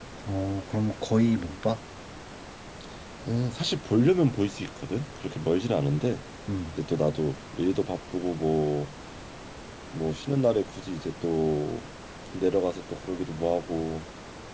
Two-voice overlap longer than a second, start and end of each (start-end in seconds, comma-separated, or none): none